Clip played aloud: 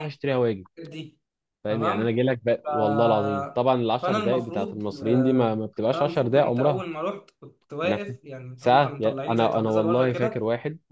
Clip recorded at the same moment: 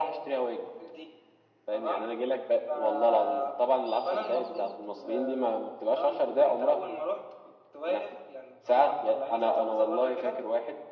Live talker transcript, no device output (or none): none